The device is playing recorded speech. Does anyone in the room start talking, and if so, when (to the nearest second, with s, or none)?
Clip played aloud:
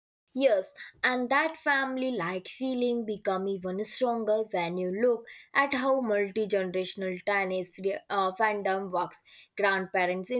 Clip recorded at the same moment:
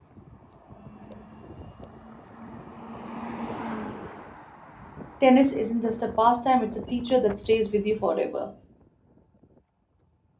5 s